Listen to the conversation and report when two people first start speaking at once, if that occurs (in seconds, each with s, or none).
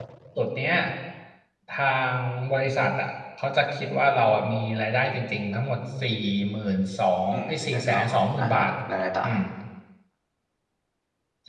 7.3 s